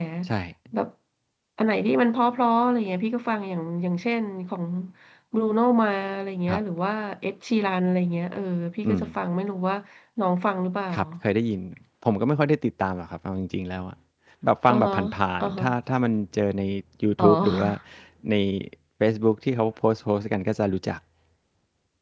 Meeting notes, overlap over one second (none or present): none